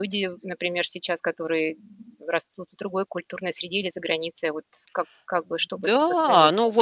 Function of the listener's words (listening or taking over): taking over